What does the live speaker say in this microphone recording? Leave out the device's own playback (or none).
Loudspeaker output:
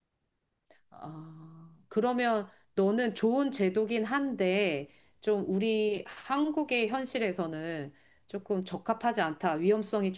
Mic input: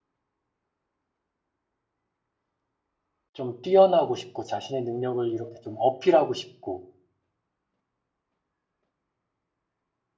좀 뛰어나고 싶고, 자신의 능력을 이렇게 좀 어필하고 싶고,